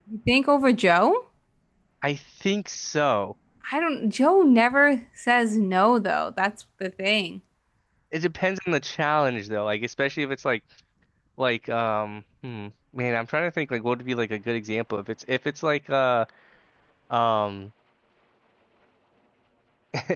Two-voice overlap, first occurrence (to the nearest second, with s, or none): none